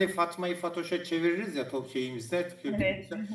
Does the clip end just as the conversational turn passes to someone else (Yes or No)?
No